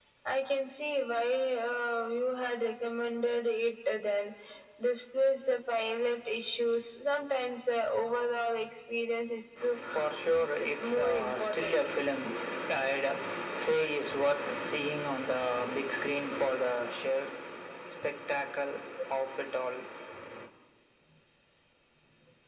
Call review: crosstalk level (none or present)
present